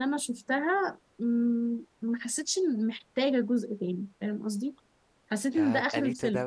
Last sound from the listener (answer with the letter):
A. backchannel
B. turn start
B